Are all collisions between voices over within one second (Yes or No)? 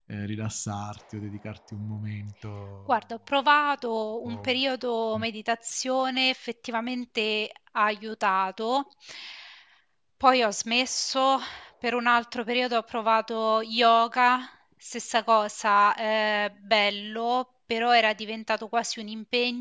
Yes